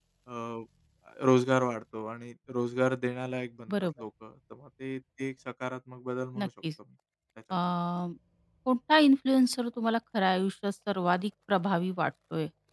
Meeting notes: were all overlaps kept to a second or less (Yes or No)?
Yes